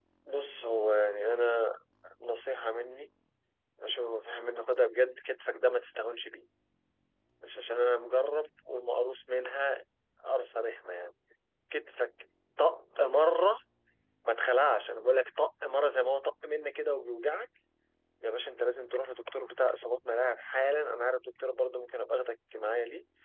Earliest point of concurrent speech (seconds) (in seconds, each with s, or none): none